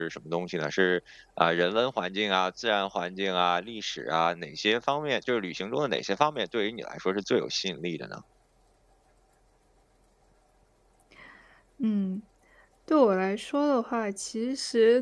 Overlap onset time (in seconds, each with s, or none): none